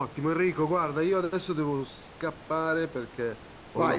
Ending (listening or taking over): taking over